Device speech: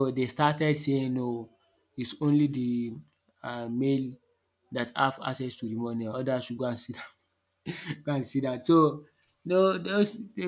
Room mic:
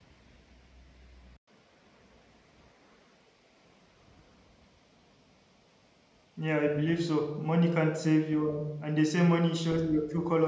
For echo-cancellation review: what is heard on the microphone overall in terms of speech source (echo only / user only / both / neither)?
user only